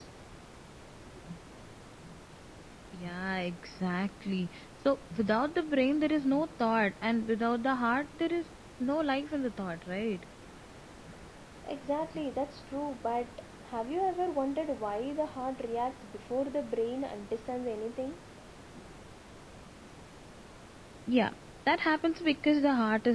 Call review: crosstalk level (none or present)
none